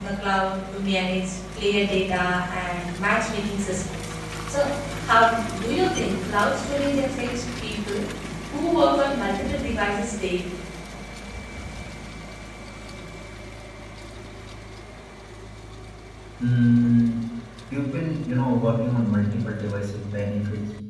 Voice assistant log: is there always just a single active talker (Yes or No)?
Yes